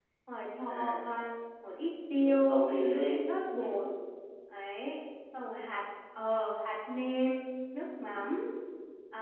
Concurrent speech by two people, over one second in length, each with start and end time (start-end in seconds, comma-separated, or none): none